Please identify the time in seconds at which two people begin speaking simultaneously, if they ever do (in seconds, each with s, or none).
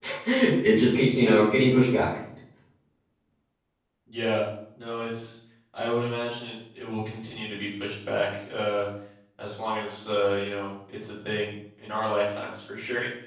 none